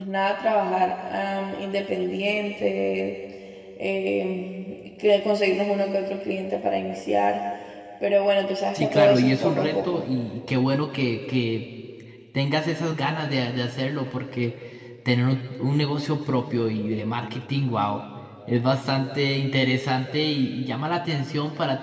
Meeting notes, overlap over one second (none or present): present